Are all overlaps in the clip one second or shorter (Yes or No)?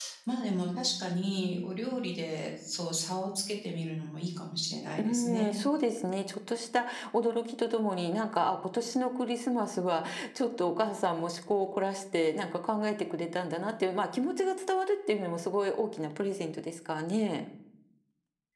Yes